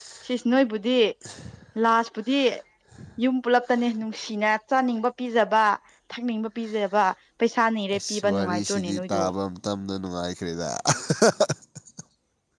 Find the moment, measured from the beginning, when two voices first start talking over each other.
7.9 s

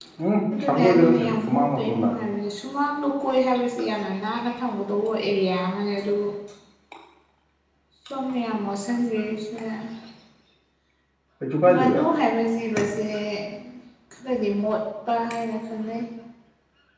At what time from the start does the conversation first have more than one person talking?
0.6 s

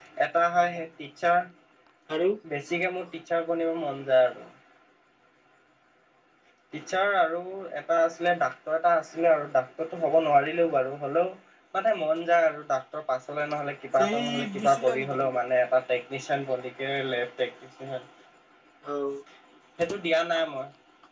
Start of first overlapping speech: 14.0 s

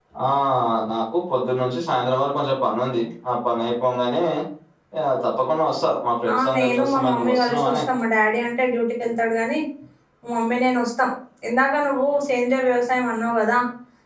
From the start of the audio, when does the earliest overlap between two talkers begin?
6.2 s

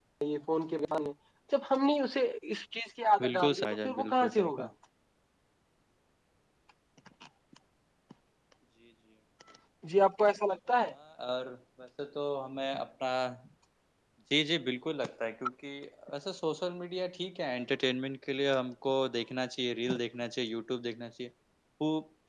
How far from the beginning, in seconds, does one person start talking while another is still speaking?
3.2 s

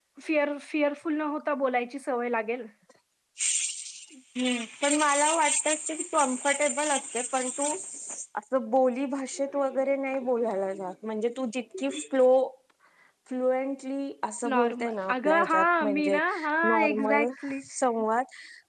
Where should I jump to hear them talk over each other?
14.4 s

